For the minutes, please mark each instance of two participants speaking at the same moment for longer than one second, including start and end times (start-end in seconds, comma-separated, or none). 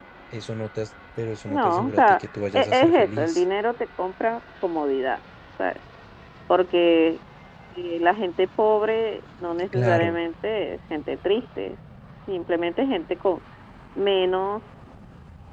1.5-3.4